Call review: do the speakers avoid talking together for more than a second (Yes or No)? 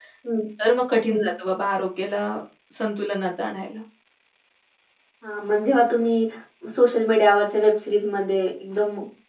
Yes